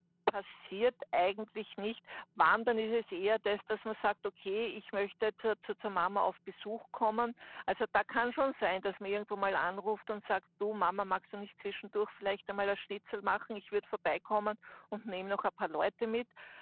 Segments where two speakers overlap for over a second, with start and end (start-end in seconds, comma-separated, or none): none